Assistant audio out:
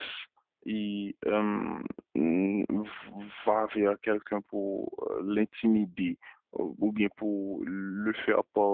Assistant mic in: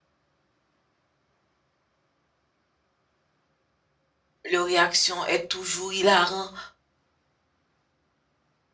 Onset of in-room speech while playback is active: 5 s

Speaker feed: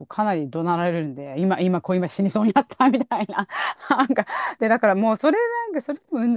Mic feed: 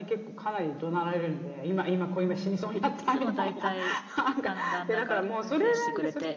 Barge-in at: 2 s

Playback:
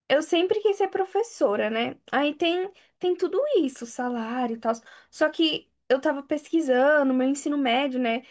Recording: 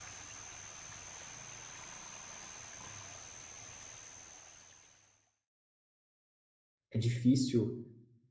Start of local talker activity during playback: 7 s

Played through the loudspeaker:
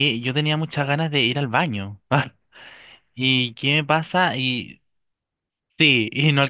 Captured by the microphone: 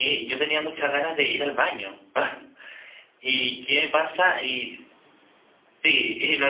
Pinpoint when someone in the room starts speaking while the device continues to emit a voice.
none

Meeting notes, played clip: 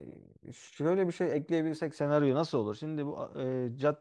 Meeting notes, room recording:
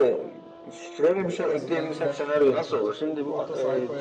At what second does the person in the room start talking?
1 s

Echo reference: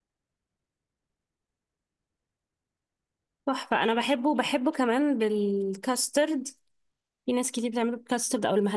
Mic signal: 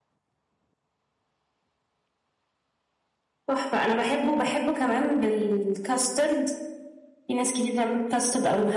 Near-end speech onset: none

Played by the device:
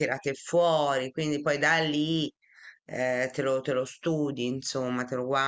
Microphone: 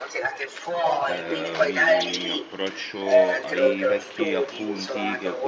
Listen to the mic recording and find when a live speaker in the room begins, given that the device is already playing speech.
1 s

